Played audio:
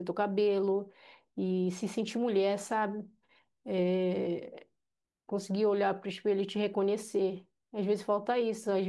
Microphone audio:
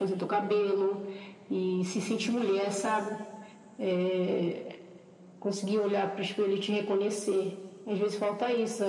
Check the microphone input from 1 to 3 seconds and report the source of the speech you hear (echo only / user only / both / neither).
echo only